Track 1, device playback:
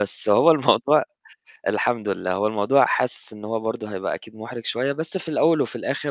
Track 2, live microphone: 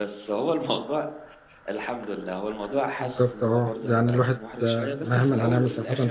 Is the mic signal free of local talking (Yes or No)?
No